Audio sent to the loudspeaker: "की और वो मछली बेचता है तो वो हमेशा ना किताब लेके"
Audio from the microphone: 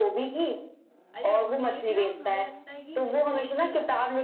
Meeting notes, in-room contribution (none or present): present